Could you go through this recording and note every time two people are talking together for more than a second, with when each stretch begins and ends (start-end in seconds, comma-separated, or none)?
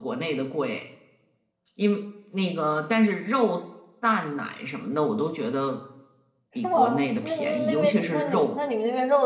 6.6-8.6